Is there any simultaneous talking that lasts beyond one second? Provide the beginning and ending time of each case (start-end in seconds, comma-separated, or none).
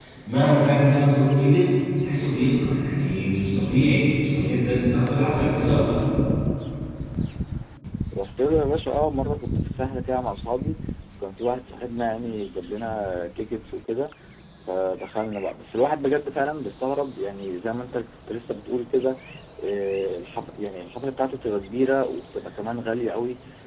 none